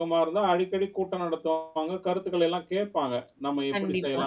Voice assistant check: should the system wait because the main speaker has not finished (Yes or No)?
Yes